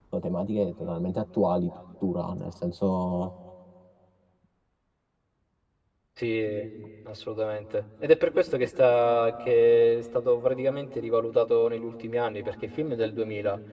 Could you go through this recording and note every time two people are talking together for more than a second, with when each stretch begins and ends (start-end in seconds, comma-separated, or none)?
none